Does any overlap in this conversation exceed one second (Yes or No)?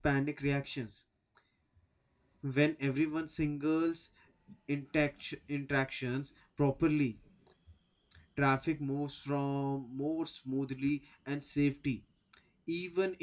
No